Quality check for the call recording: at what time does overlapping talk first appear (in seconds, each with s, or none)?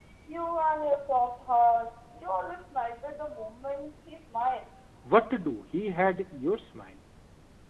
none